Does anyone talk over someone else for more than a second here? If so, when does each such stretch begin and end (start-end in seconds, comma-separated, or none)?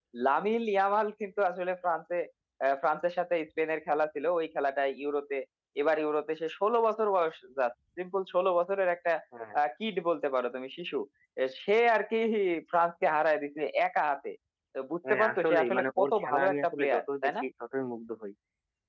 15.1-17.3